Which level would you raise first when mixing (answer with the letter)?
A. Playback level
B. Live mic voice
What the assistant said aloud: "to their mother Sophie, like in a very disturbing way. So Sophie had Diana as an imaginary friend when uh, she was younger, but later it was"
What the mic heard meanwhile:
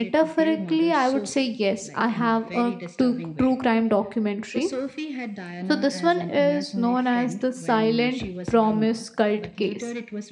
A